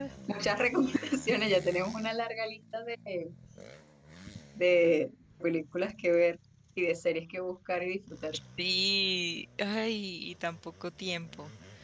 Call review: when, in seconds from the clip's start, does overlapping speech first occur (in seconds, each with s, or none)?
none